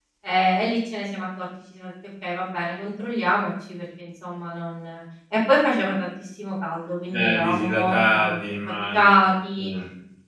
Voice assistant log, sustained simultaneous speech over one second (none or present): present